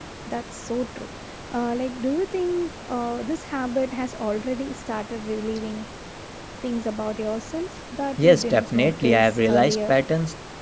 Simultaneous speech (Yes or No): Yes